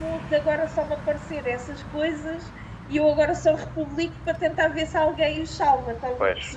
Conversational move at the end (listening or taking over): taking over